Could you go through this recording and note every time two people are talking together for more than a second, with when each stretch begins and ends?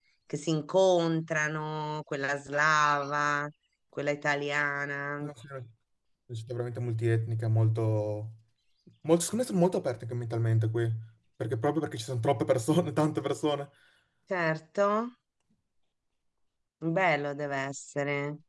none

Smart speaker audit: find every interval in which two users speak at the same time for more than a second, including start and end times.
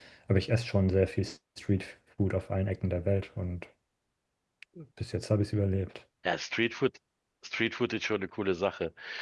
none

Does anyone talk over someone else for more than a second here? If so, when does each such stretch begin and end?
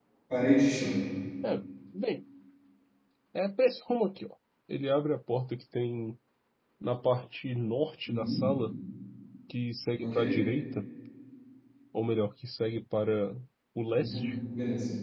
none

